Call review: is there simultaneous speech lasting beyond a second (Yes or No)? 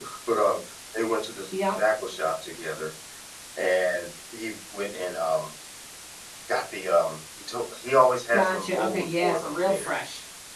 Yes